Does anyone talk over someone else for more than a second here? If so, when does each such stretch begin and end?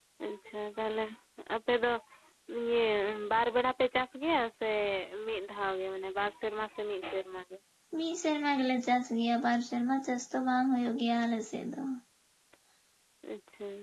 none

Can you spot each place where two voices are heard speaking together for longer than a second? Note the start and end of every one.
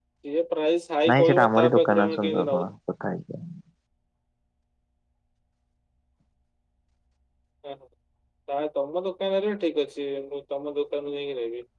1.1-2.6

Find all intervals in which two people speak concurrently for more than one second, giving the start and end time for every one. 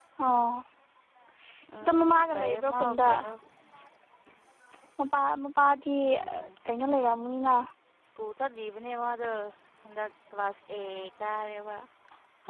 1.8-3.1

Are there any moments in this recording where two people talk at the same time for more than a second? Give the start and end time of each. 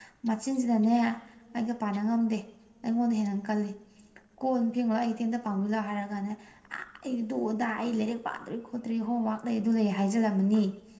none

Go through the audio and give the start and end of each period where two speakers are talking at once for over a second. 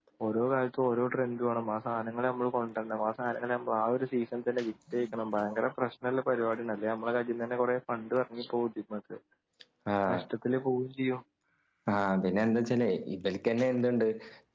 none

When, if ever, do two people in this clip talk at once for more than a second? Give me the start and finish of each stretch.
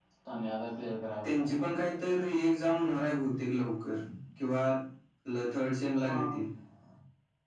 none

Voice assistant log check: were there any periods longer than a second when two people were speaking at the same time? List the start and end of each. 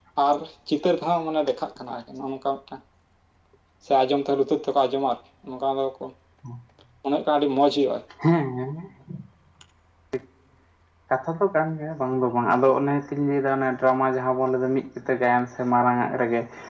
none

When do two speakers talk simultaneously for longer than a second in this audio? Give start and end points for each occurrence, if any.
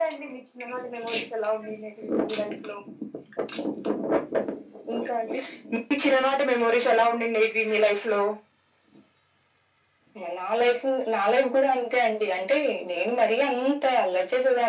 none

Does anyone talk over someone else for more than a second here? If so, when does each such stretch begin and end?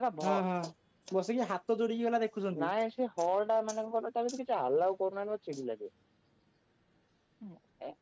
none

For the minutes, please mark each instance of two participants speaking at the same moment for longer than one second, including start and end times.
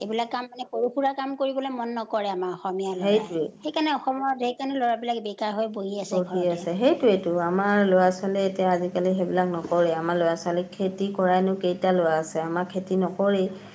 none

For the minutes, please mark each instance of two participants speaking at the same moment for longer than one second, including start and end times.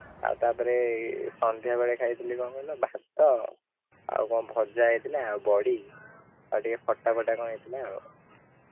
none

